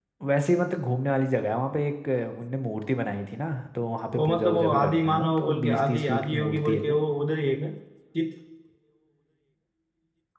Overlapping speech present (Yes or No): Yes